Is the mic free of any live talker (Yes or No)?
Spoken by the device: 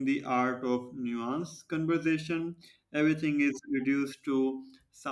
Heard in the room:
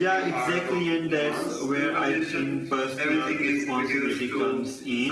No